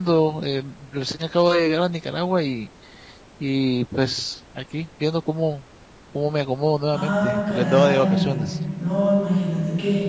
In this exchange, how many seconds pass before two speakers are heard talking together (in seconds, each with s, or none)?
6.9 s